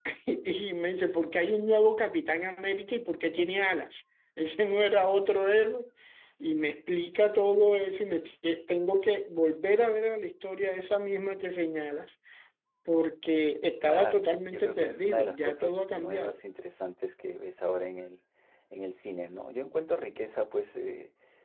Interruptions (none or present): present